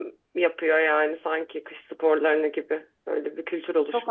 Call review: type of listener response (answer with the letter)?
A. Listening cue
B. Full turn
B